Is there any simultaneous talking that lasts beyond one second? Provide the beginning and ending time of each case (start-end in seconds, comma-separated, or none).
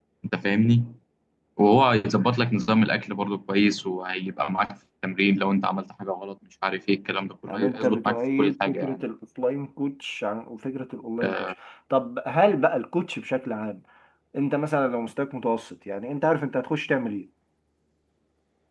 7.4-9.0